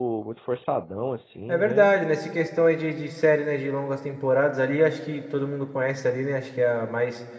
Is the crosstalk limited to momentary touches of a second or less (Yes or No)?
Yes